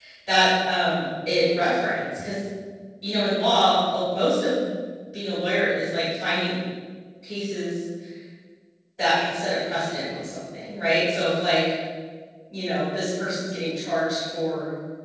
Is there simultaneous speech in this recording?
No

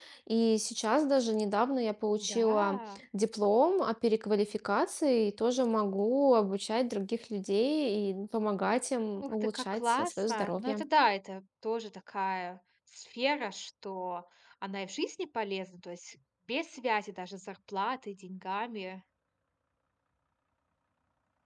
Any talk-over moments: Yes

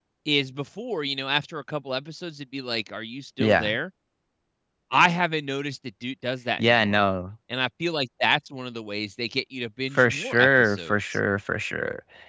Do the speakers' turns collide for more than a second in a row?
Yes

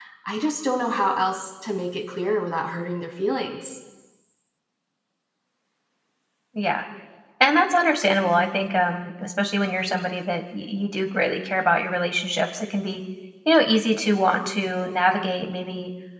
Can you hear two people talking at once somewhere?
No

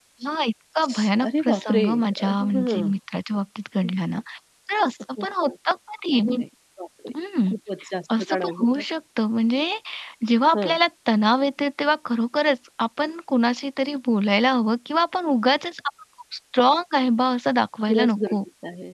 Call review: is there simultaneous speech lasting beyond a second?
Yes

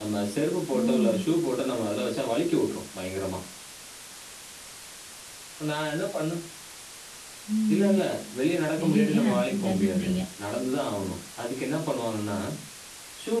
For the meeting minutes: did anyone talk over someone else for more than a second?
Yes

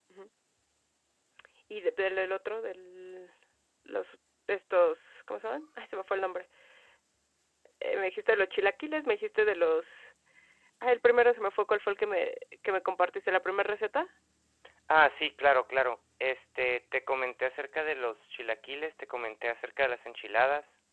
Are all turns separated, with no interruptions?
Yes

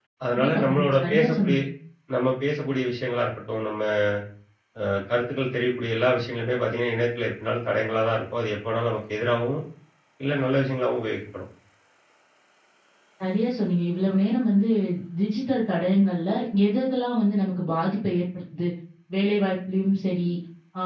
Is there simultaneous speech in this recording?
Yes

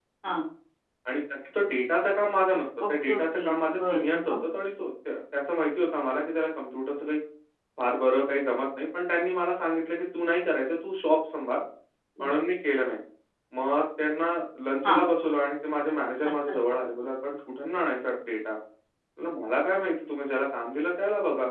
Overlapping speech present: Yes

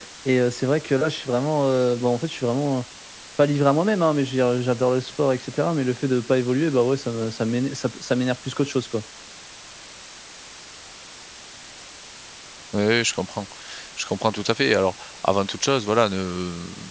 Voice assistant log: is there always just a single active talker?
Yes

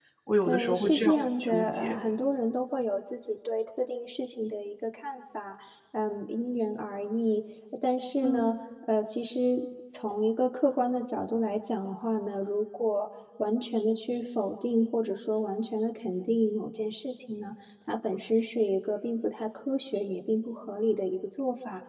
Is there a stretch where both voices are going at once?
Yes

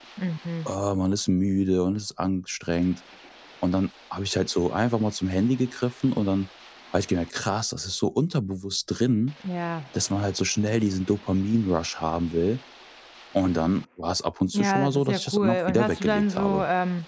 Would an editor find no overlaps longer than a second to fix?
No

